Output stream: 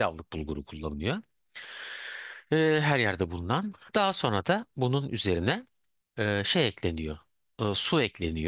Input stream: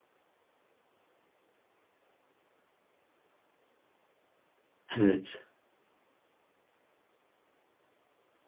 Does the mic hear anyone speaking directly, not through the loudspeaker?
Yes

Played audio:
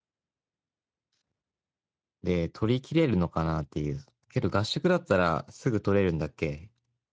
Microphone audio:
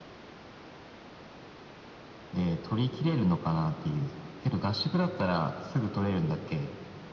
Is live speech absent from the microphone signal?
Yes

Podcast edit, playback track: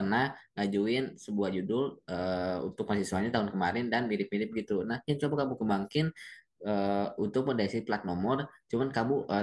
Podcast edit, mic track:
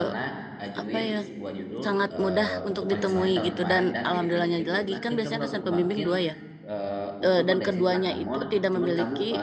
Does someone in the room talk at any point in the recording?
Yes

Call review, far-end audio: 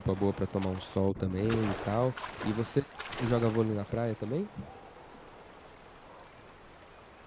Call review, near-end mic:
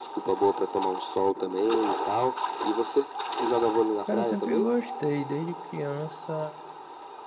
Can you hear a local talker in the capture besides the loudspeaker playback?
Yes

